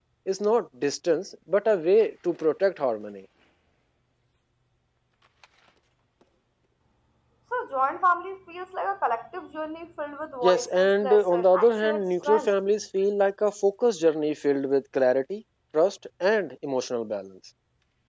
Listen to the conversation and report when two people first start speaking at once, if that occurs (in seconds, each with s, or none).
10.4 s